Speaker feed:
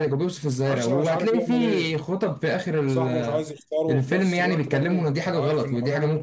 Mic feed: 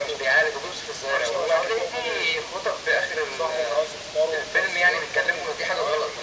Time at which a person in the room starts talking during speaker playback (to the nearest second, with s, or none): none